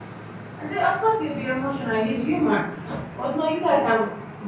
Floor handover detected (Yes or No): No